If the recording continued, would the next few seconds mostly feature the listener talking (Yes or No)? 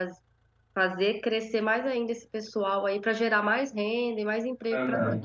Yes